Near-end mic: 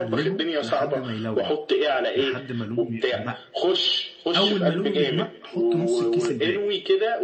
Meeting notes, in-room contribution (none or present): present